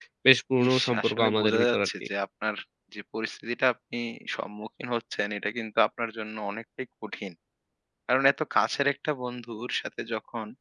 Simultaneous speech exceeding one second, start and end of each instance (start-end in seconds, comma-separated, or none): 0.7-1.9